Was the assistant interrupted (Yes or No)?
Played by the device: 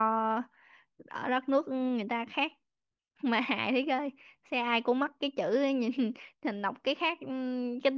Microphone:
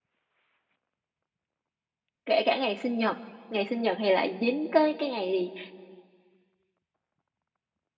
Yes